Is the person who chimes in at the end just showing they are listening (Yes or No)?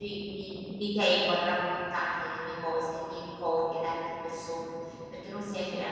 Yes